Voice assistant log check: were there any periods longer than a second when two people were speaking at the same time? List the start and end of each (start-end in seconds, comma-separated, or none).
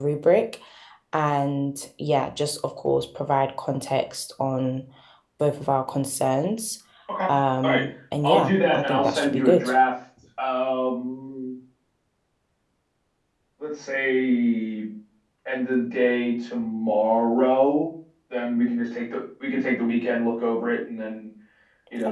8.2-9.7